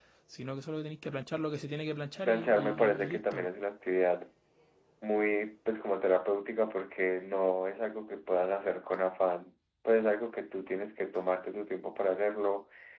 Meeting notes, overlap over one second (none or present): present